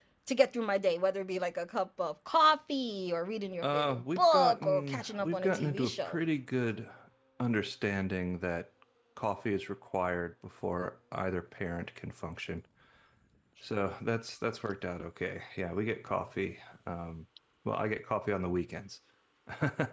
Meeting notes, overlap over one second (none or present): present